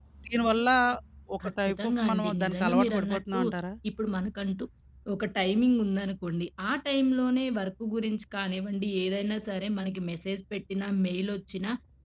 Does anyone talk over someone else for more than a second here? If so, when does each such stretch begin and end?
1.4-3.4

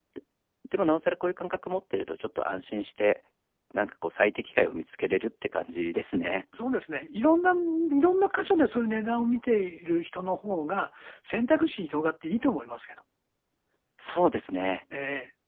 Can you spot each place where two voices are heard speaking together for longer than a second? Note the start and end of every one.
none

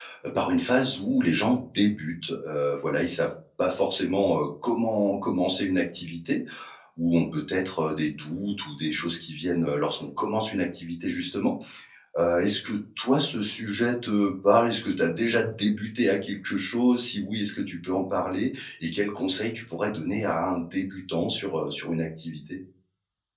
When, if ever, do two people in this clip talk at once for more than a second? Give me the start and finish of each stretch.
none

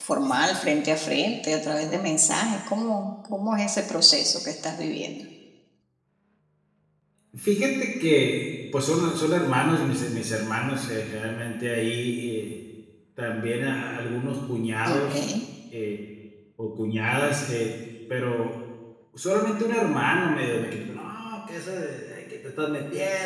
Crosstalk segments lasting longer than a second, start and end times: none

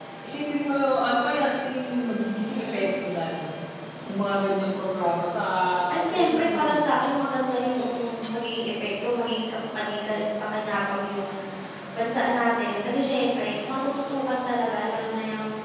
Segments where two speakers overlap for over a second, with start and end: 6.1-7.3

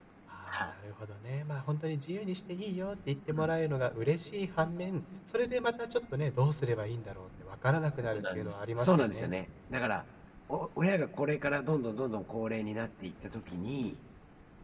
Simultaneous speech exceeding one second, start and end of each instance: 8.0-9.3

